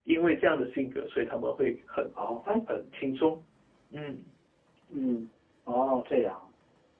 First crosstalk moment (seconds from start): none

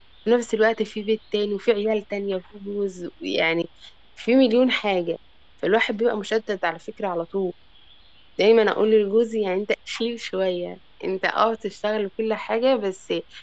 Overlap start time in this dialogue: none

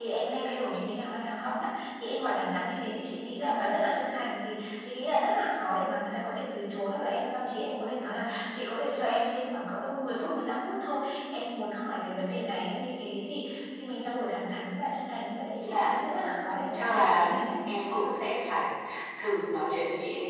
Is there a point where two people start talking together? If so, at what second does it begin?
15.6 s

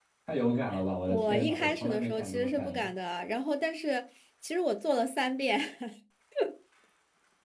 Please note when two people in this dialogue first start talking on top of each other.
1.1 s

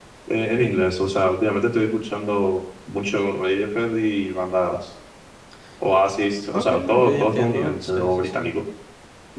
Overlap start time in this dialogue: 6.5 s

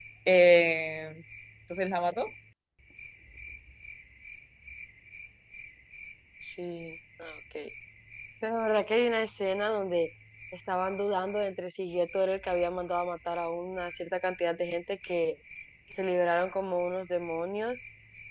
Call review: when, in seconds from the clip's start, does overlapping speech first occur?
none

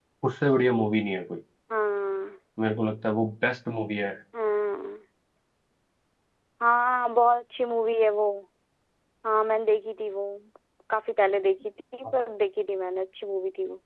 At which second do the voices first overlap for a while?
none

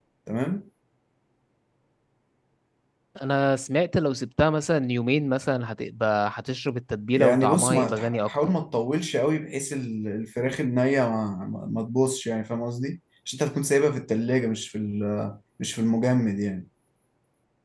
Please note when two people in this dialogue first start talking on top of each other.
7.2 s

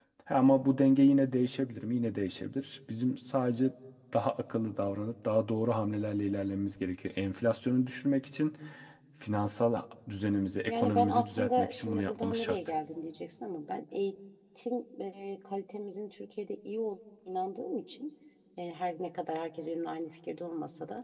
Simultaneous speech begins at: 10.7 s

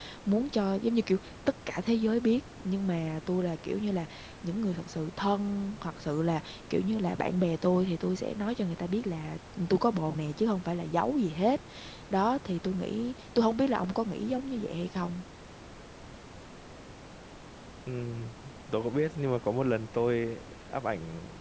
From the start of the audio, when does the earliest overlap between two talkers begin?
none

